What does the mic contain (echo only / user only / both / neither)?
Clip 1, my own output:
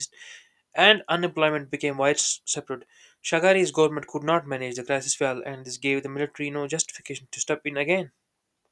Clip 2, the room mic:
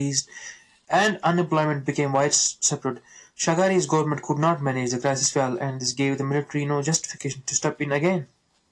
echo only